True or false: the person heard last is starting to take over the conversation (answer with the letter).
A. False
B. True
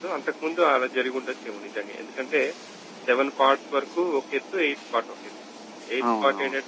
A